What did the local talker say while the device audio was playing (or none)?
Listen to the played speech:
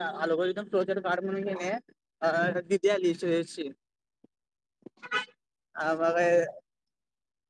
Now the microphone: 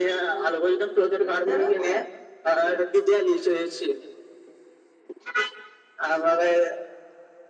पु दरो तर